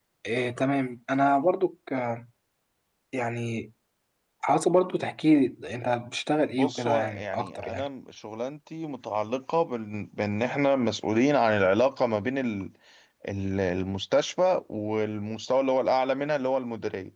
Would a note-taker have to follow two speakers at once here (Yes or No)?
Yes